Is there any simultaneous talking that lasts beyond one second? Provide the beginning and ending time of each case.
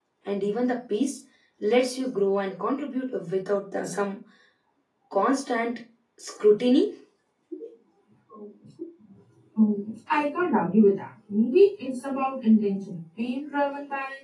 none

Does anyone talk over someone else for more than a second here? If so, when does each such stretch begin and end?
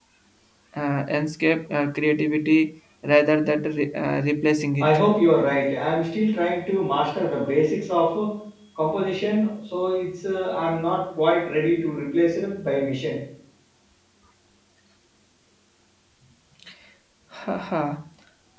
none

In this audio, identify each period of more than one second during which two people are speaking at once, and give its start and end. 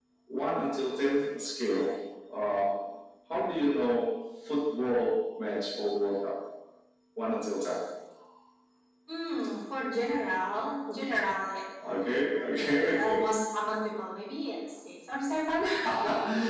11.8-13.2

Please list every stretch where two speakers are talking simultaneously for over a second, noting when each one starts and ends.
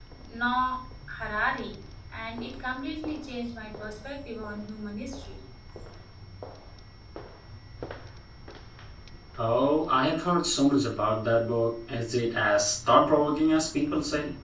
none

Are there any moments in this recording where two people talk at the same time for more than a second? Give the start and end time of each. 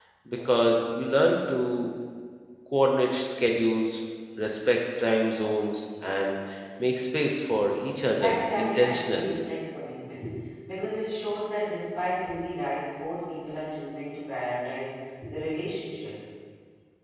8.2-9.4

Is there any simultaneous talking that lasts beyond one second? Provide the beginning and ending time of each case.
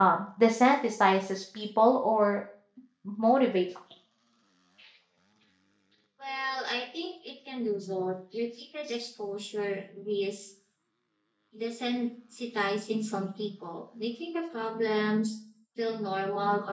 none

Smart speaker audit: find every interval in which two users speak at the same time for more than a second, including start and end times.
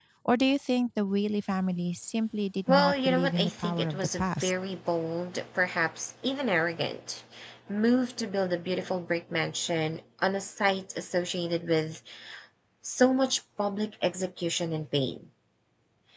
2.7-4.5

